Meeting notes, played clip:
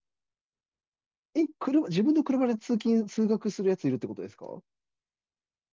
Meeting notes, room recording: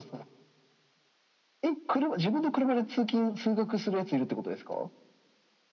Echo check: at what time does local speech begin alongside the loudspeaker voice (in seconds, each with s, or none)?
none